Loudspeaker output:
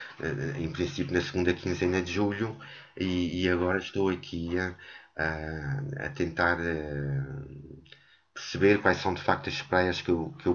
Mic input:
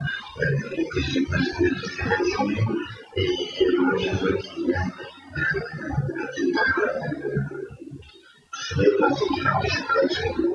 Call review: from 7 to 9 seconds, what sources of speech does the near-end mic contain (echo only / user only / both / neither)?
echo only